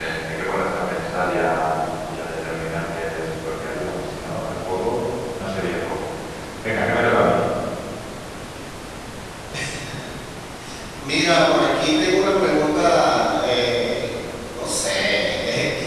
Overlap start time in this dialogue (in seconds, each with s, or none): none